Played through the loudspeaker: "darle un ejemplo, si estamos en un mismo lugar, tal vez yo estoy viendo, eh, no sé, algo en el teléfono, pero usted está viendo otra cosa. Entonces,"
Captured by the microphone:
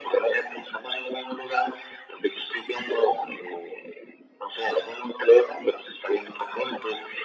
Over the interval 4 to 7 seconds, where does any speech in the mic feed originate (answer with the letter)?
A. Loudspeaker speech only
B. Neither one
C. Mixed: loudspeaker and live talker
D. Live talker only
A